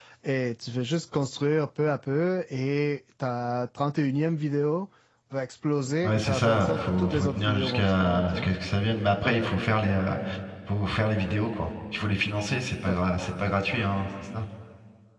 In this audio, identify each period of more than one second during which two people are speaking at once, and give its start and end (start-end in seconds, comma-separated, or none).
6.0-8.5